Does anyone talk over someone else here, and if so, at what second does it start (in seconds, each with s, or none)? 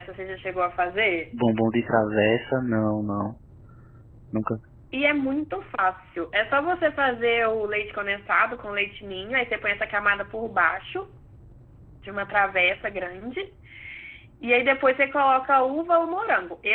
none